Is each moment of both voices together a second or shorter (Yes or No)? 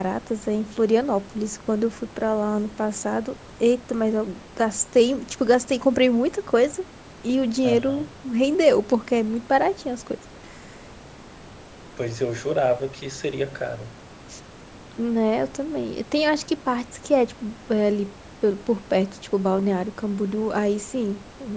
Yes